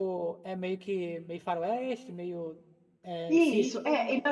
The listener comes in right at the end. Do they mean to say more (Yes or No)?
Yes